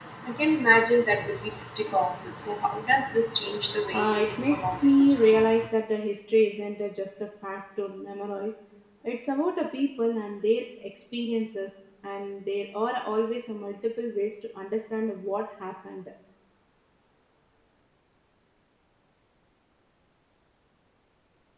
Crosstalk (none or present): present